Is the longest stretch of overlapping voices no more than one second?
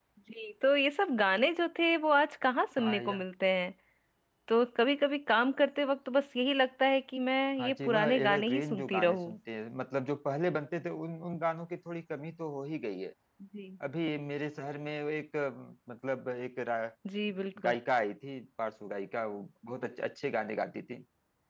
No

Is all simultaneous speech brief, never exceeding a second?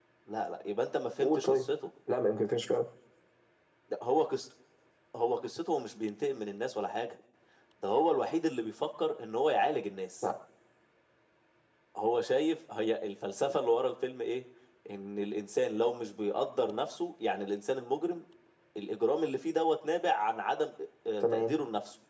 Yes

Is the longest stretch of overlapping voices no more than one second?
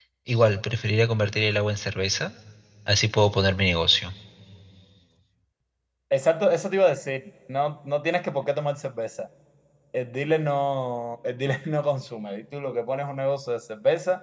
Yes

